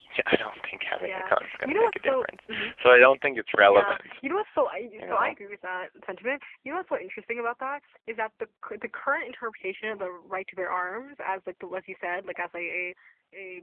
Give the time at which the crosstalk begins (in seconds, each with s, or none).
1.0 s